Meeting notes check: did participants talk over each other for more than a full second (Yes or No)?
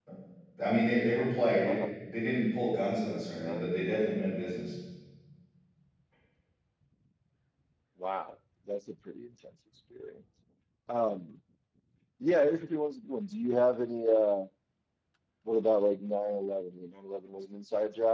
No